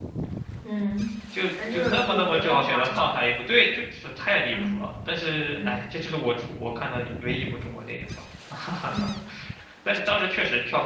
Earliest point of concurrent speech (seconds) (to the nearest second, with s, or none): 2 s